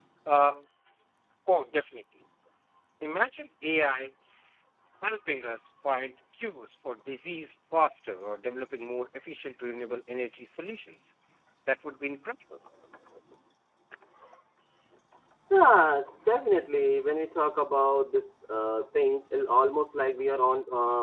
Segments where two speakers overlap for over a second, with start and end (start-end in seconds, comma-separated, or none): none